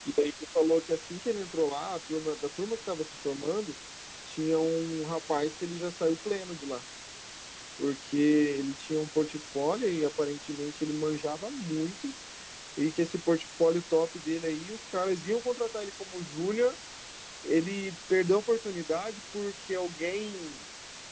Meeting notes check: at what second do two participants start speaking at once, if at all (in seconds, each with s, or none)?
none